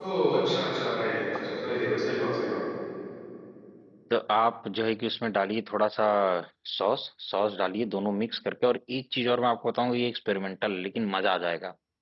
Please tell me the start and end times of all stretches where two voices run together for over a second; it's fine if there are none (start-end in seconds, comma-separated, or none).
none